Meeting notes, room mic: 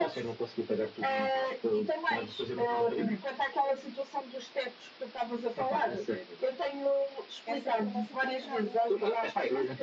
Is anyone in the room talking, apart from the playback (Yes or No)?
Yes